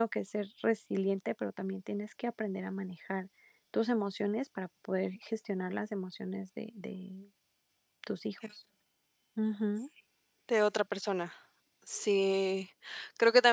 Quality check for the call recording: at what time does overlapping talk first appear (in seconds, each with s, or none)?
none